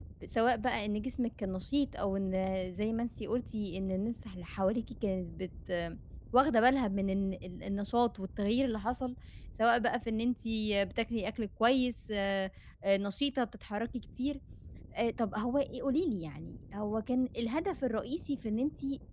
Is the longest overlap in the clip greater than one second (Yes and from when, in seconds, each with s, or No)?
No